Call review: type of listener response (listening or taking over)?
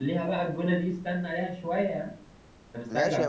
taking over